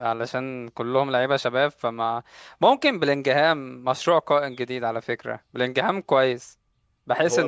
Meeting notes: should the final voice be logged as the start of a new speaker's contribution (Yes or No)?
Yes